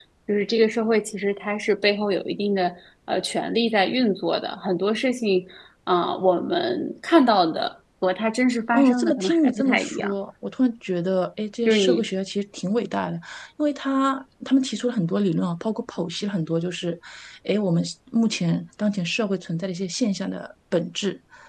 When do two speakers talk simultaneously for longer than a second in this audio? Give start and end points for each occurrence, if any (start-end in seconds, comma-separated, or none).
8.7-10.1